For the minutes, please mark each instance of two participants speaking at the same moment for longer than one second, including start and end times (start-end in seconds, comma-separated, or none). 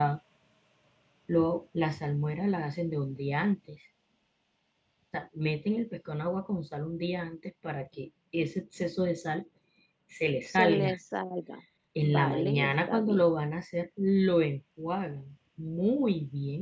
12.0-13.3